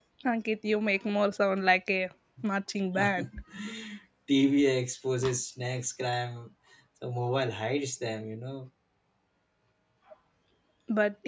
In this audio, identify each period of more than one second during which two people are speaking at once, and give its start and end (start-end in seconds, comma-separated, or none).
none